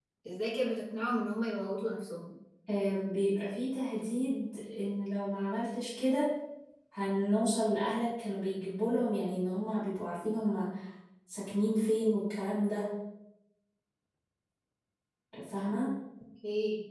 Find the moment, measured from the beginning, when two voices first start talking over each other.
none

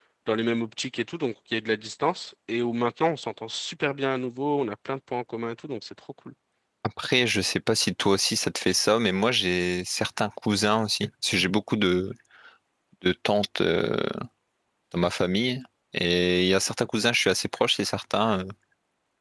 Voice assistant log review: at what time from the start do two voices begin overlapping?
none

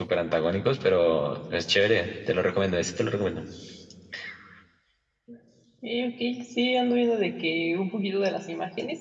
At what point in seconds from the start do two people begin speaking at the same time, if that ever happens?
none

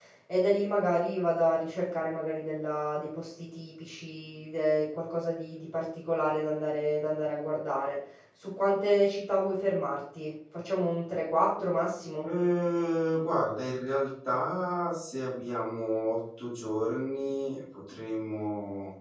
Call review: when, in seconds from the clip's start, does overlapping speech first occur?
none

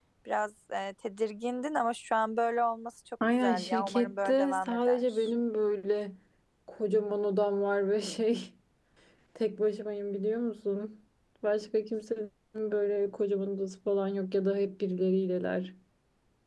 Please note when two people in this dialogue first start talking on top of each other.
3.2 s

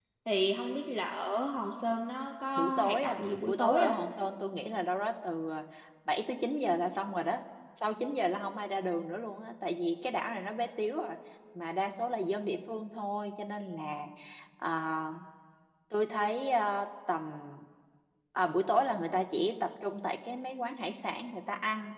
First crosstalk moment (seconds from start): 2.5 s

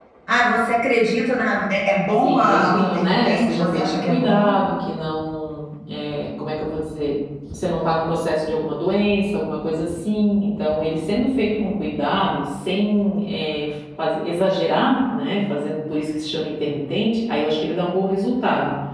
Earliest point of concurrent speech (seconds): 2.2 s

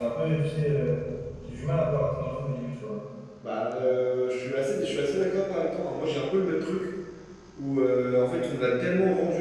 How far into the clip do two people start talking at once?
none

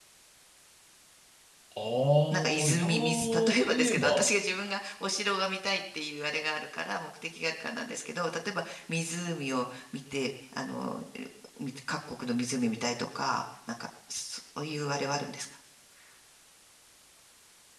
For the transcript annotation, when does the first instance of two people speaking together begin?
2.3 s

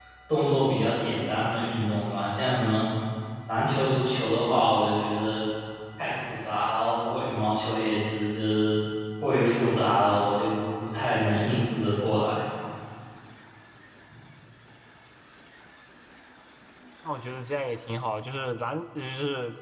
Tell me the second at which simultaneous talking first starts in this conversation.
none

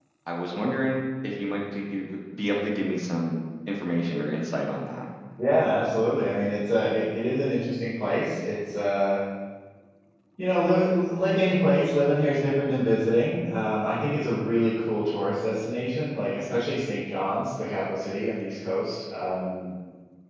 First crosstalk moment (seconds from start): none

